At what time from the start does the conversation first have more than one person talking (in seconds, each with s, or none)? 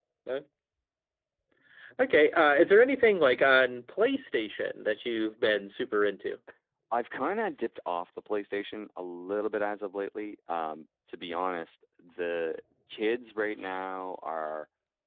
none